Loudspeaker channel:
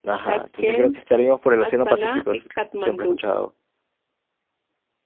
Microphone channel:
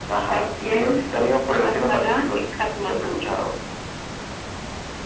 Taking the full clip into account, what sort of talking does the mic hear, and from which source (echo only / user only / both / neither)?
echo only